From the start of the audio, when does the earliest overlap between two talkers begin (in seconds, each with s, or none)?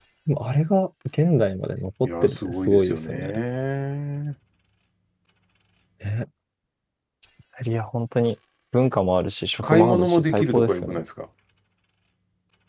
2.0 s